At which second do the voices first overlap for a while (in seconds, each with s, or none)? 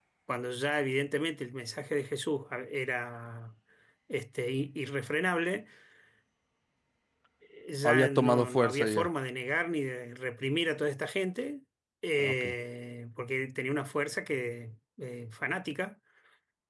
7.8 s